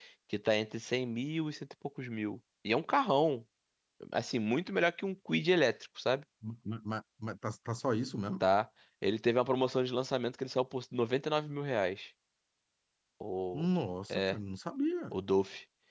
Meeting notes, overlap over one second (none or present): none